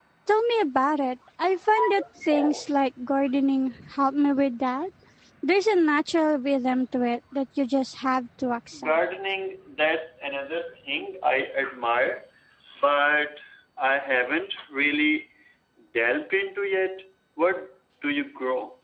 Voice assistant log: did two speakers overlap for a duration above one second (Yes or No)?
No